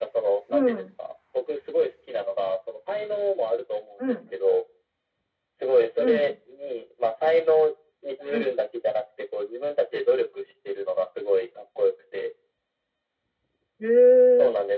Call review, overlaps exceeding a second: none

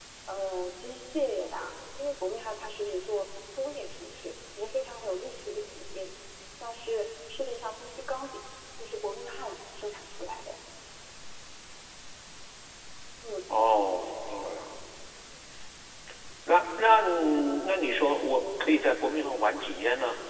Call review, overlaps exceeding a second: none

